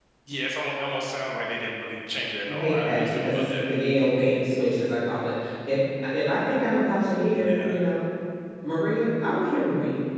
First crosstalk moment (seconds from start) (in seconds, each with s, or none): 2.5 s